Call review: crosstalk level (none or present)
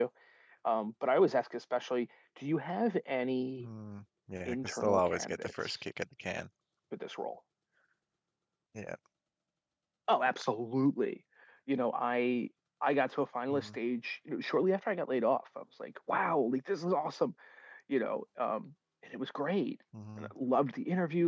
present